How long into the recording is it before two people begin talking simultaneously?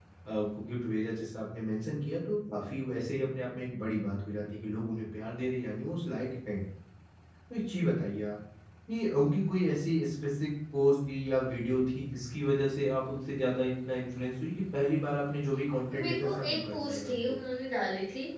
15.9 s

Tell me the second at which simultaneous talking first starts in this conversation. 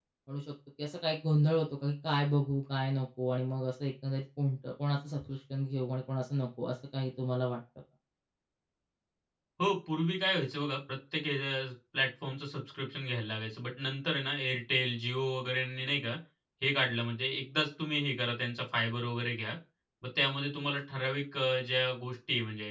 none

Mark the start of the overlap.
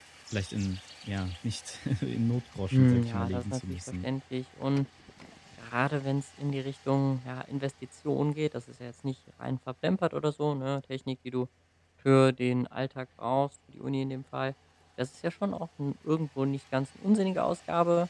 2.7 s

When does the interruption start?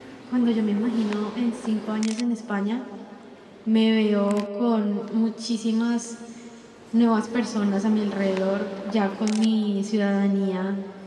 none

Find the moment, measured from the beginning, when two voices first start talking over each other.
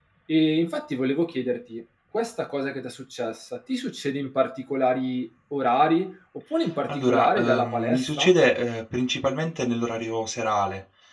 6.9 s

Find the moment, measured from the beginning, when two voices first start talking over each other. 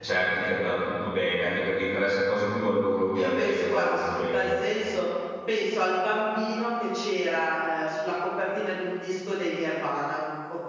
3.1 s

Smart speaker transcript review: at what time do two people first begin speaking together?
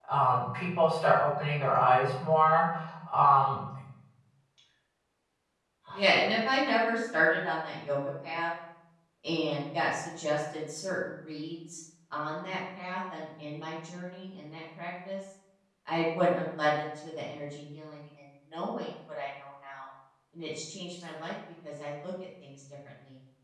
none

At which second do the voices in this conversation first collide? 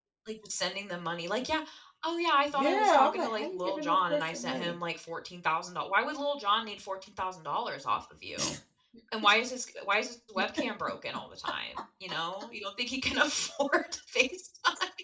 2.6 s

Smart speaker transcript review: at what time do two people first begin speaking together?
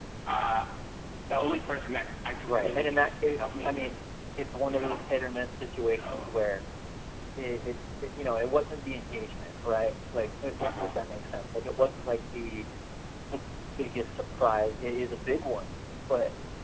2.4 s

